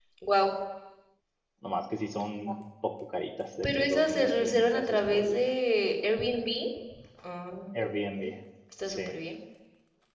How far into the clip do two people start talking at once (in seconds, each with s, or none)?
3.6 s